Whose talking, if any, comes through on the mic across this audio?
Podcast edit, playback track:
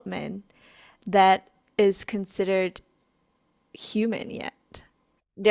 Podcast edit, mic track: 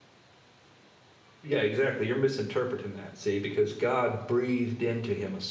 user only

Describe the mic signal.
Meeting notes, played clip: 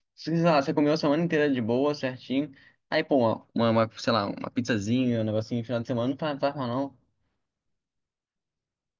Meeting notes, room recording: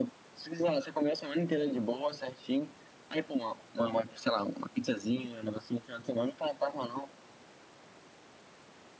echo only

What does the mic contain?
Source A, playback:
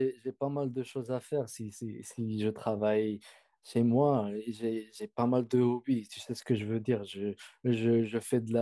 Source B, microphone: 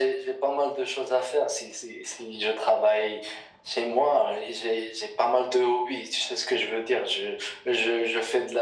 echo only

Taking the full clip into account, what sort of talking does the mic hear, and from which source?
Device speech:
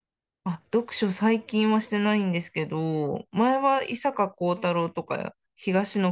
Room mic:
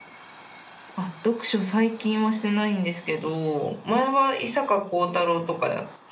echo only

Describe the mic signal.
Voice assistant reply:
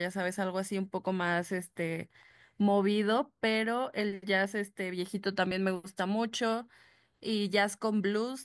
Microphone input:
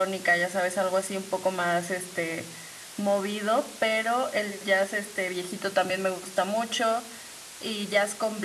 echo only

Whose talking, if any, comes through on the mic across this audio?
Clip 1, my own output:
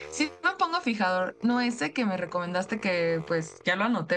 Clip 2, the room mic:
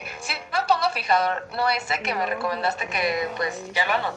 both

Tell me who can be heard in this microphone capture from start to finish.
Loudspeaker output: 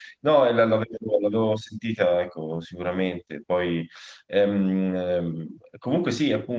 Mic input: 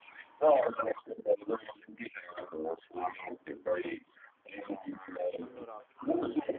both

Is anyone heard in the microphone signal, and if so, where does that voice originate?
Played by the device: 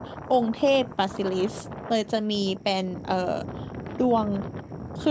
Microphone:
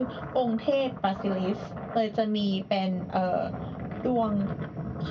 echo only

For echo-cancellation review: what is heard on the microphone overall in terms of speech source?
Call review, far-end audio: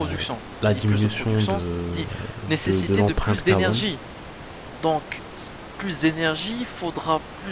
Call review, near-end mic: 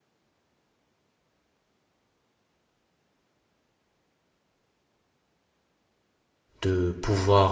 user only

